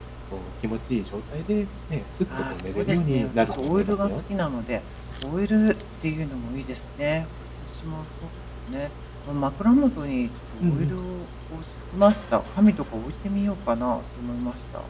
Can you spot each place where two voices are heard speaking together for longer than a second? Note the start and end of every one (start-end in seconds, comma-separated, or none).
2.5-4.1